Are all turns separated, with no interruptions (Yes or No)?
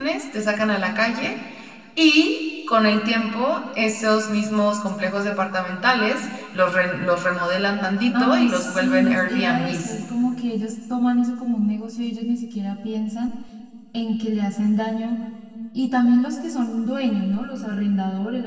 No